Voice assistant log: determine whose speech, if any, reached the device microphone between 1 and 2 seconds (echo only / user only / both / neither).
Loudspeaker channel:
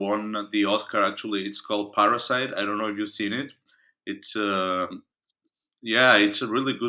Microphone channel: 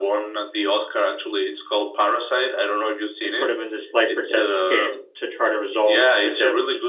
echo only